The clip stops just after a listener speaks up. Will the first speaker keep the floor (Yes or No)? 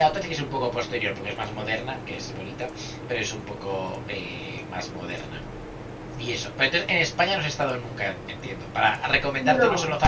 Yes